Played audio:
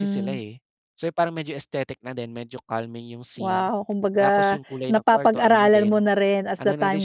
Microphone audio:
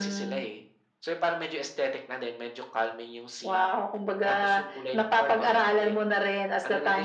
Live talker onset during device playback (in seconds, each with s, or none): none